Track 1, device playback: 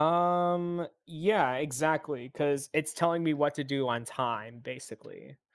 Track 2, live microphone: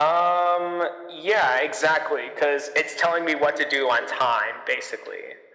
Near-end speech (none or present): none